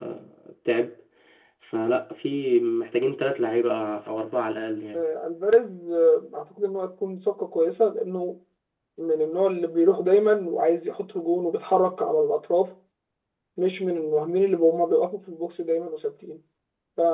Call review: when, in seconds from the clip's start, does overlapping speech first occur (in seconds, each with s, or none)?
none